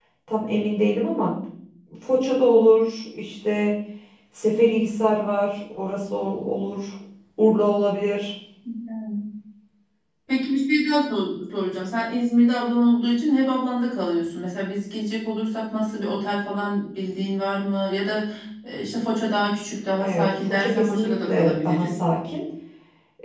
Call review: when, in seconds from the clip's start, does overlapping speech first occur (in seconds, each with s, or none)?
20.0 s